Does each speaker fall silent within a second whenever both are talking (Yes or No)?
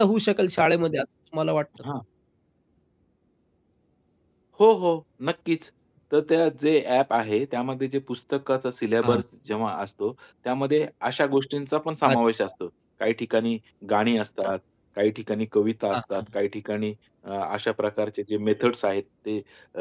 Yes